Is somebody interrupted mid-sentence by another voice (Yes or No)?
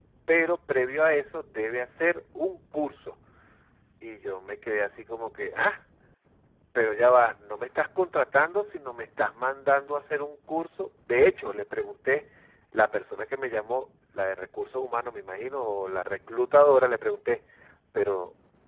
No